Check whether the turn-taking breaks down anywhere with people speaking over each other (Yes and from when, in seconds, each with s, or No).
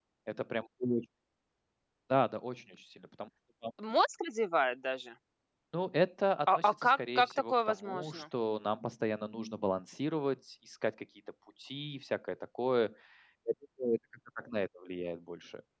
Yes, from 6.6 s